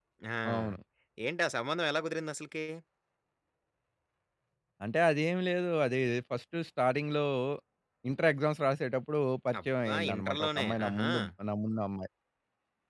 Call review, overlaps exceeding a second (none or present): present